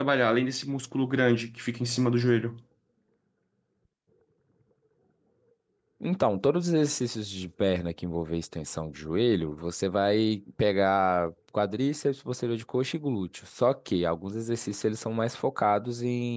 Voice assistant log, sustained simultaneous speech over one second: none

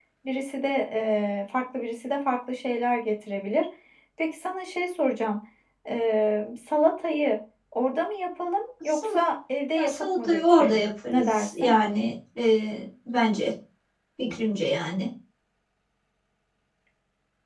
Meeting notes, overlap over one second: present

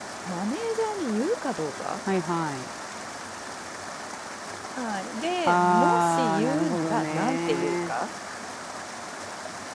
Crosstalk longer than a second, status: present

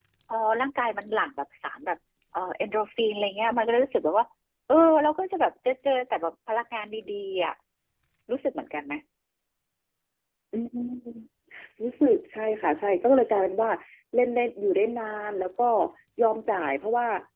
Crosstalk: none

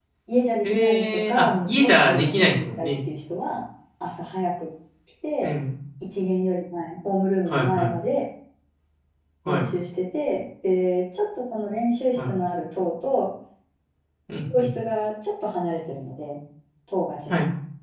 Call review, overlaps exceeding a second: present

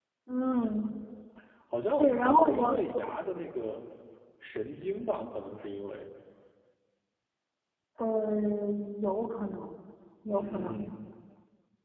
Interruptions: present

